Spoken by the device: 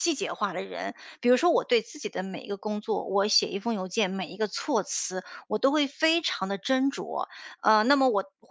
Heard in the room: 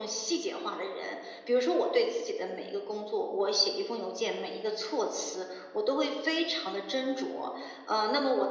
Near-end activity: none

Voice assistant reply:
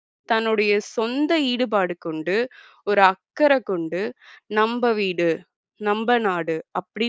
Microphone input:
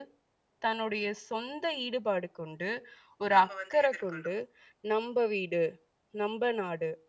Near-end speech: present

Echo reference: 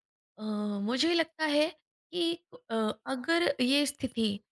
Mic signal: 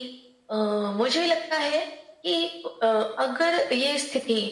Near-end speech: none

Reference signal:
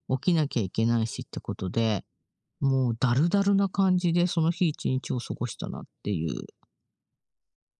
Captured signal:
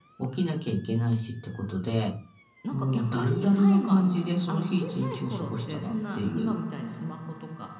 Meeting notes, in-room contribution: present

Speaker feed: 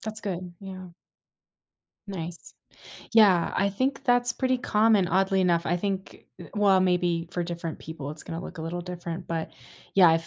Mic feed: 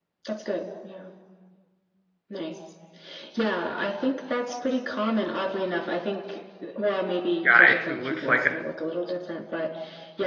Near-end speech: present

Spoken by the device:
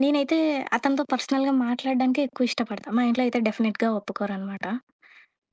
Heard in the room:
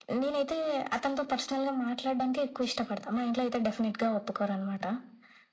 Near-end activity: none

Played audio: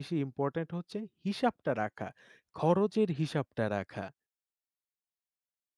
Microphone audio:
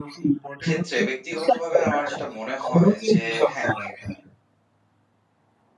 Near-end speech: present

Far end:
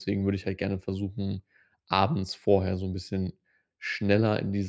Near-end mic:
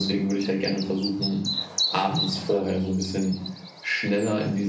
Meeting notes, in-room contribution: none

